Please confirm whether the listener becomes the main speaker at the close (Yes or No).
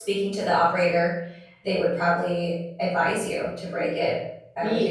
Yes